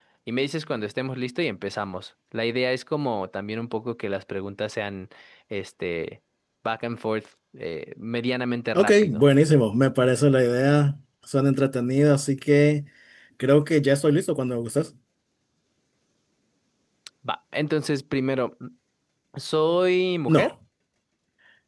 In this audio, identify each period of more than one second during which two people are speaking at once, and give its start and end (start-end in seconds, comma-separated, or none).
none